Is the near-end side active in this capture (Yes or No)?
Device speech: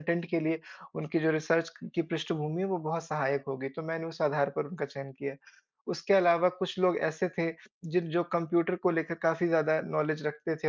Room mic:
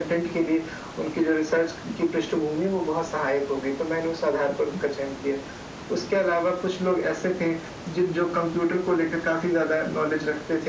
No